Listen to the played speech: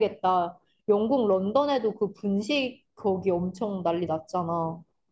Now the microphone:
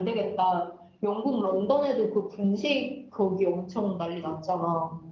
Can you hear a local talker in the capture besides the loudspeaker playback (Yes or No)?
No